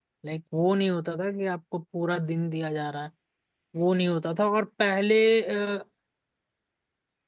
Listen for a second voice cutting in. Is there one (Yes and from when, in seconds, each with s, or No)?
No